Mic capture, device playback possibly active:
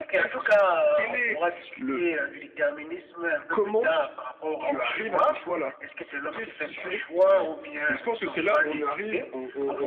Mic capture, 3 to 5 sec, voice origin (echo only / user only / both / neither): both